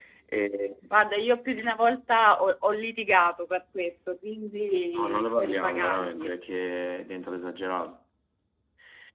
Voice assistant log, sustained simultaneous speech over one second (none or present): present